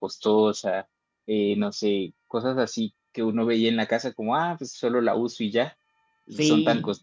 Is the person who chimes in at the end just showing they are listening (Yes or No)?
Yes